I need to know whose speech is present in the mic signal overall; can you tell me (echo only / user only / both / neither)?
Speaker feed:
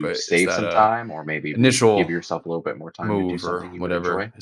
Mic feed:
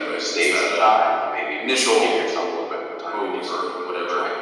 echo only